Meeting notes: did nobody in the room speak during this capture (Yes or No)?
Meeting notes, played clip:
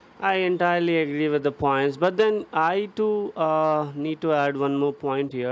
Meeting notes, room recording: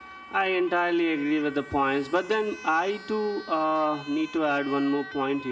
Yes